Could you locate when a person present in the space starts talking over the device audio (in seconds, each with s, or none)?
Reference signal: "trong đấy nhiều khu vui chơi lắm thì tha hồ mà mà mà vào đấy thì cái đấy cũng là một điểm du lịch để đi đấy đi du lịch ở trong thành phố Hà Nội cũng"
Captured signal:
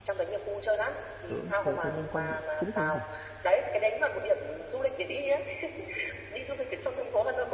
1.2 s